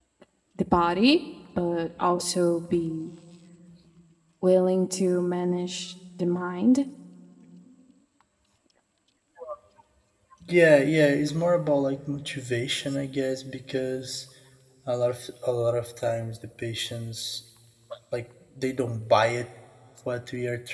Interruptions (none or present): none